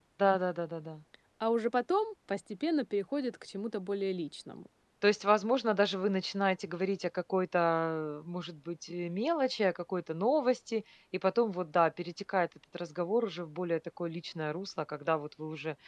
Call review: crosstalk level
none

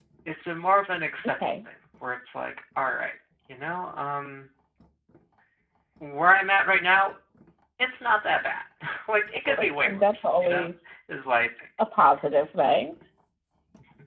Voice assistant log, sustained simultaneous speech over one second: present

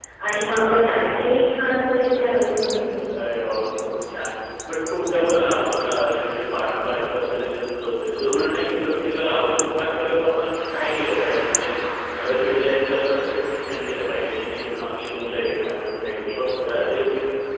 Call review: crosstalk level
none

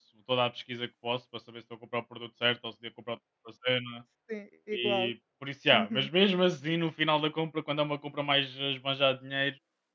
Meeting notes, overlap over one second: none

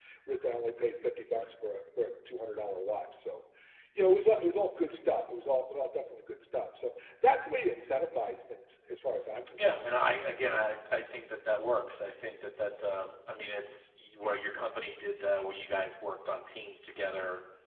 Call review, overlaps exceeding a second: none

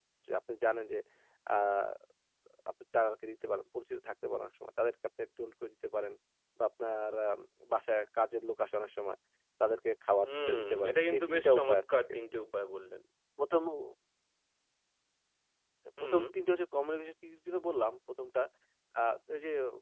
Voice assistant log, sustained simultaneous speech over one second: present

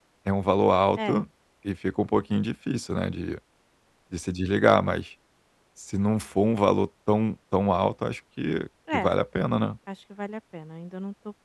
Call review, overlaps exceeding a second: none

